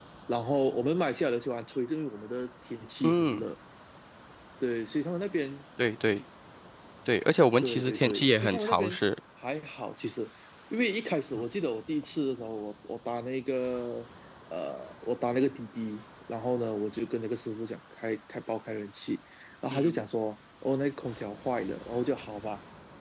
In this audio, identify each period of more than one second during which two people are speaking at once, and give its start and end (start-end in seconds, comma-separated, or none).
7.6-9.0